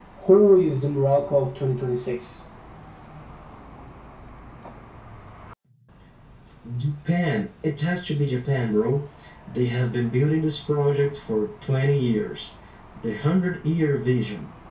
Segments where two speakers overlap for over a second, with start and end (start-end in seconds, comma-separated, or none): none